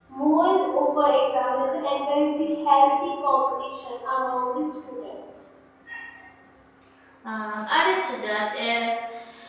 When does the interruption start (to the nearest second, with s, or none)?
none